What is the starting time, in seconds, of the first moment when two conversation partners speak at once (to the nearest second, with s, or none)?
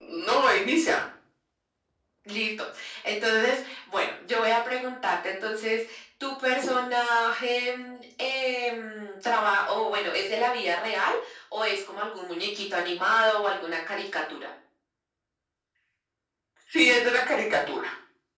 none